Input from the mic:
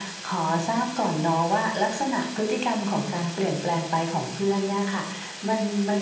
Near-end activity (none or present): none